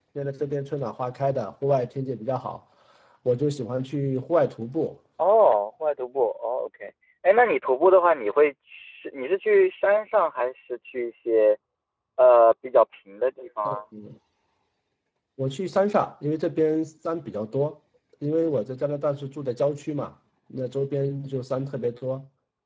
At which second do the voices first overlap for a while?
none

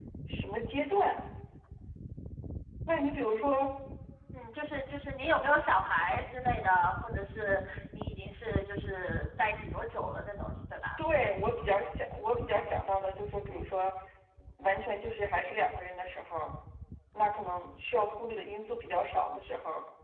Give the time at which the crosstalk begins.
none

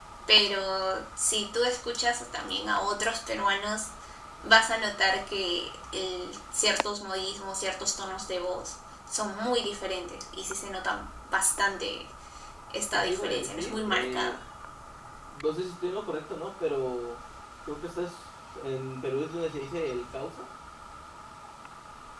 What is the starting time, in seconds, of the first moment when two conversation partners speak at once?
12.9 s

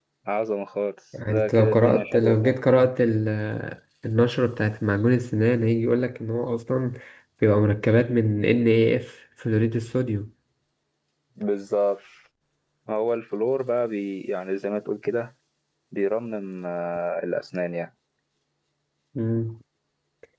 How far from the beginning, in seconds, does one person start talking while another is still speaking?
1.3 s

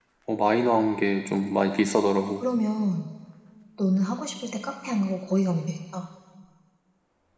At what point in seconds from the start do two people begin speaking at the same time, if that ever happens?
none

